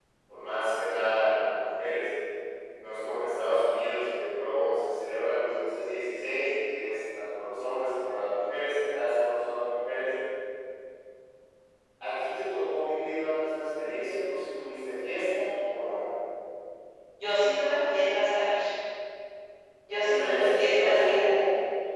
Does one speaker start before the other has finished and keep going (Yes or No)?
Yes